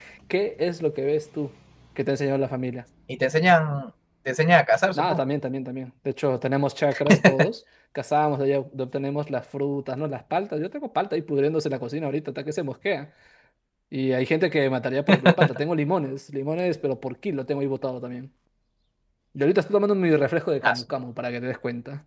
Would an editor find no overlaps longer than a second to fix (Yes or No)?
Yes